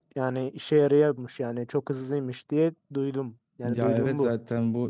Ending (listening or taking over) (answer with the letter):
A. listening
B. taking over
B